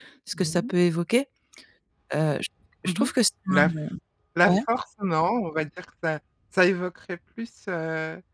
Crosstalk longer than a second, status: none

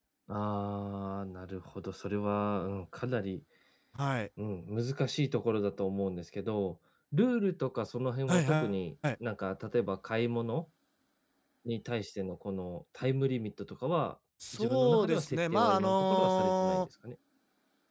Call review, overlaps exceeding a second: present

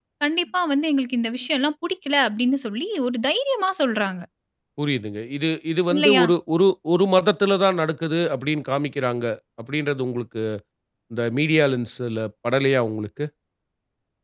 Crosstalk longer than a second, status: none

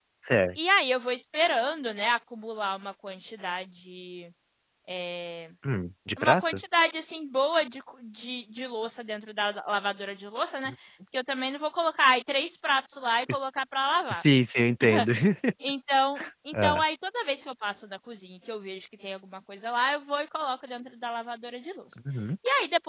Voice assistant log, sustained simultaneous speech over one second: none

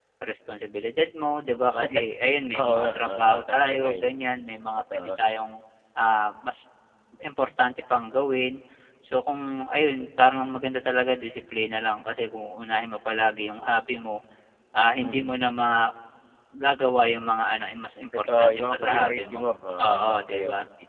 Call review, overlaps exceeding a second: present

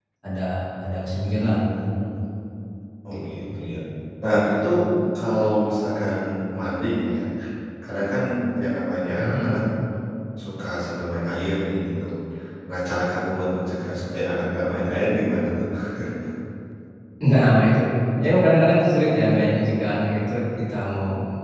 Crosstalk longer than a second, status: none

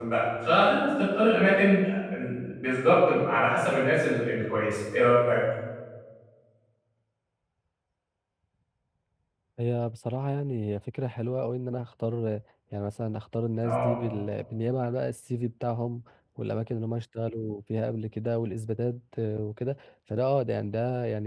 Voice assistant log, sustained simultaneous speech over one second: none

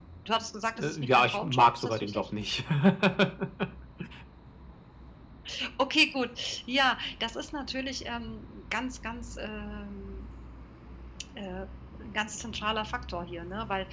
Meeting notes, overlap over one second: present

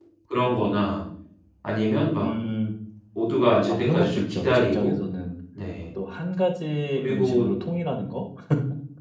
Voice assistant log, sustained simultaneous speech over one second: present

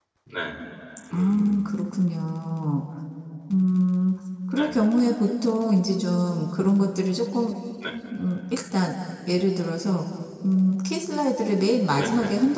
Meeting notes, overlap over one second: none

